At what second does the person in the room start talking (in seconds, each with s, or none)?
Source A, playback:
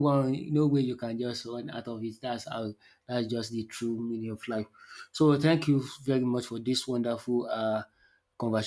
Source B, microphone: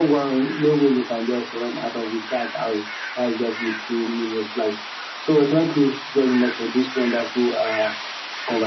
none